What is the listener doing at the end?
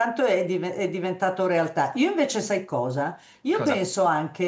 listening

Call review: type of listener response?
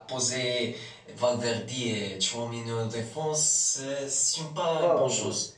taking over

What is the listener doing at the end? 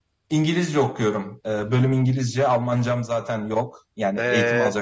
taking over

